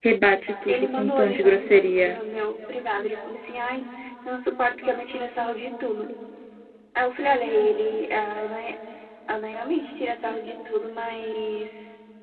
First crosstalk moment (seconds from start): 0.7 s

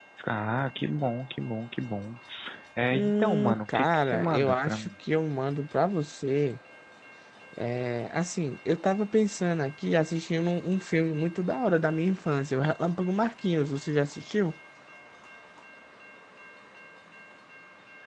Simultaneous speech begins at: 2.9 s

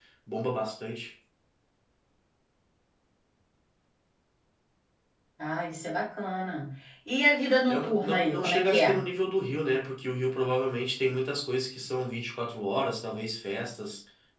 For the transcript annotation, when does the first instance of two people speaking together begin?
7.7 s

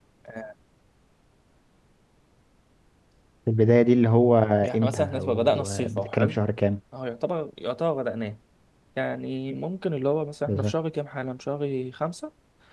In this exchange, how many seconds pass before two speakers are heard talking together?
4.7 s

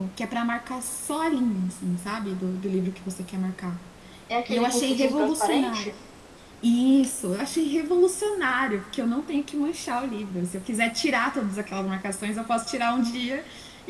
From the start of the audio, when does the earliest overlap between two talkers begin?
4.5 s

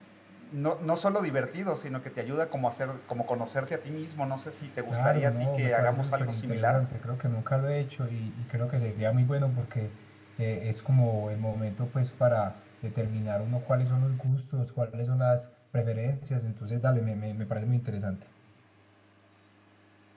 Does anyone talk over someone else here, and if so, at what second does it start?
4.9 s

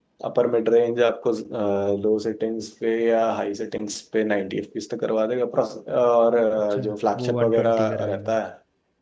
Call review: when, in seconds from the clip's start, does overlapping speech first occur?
6.7 s

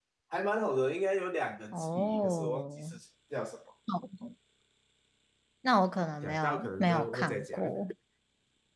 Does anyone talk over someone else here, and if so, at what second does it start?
1.7 s

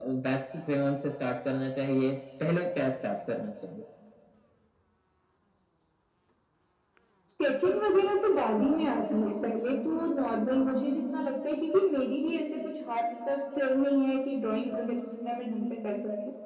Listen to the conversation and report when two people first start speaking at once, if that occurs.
none

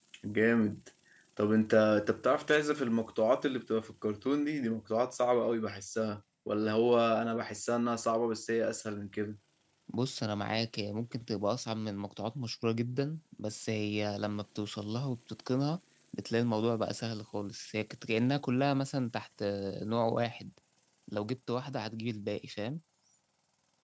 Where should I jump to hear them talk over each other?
none

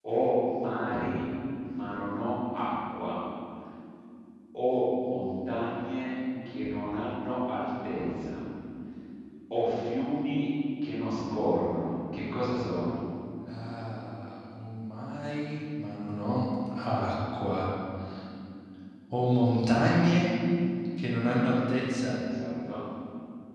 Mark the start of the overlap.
none

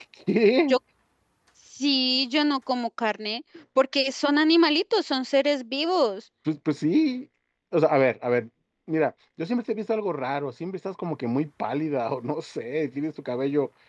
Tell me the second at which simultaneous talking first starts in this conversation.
none

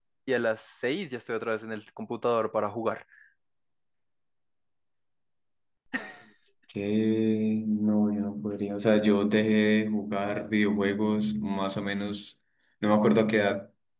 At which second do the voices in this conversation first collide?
none

